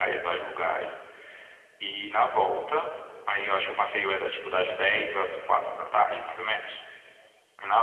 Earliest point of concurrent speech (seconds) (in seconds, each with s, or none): none